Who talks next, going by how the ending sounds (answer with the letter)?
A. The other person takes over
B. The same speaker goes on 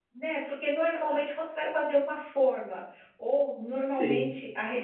B